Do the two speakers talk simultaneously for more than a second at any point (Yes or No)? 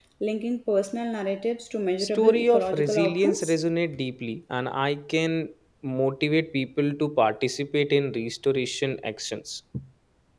Yes